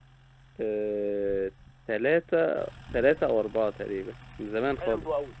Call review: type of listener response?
taking over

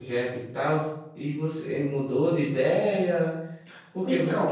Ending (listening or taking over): listening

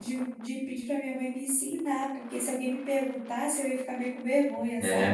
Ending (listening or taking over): taking over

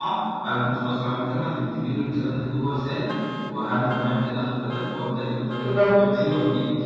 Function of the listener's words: listening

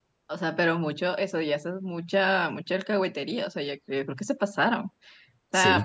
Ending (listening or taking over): taking over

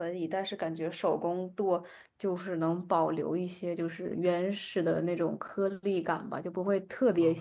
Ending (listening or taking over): listening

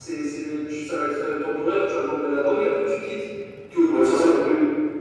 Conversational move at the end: taking over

